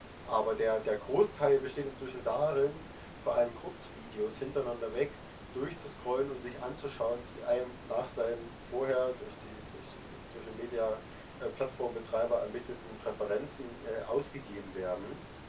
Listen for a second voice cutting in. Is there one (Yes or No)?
No